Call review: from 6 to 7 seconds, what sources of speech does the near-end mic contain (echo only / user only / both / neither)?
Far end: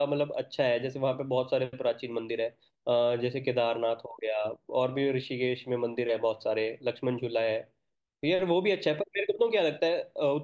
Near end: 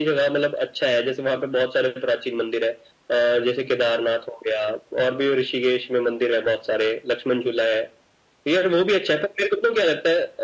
echo only